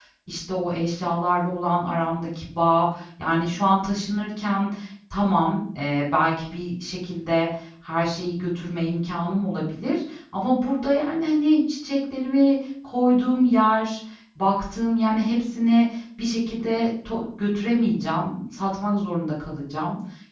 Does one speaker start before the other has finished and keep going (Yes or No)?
No